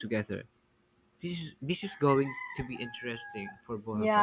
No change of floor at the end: No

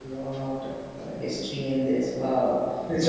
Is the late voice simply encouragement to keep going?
Yes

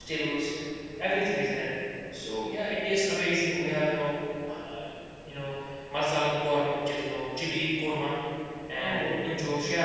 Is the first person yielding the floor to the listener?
No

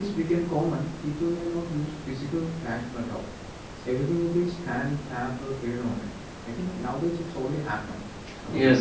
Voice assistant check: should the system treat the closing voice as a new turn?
Yes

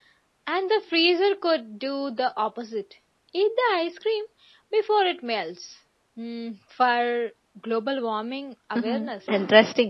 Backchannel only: No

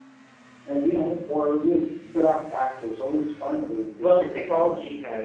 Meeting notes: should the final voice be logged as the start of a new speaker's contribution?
Yes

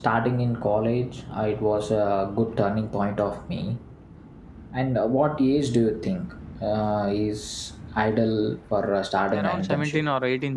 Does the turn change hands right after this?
Yes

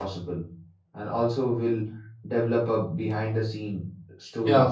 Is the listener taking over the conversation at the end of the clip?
Yes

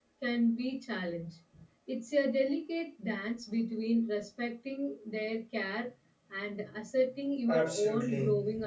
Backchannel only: No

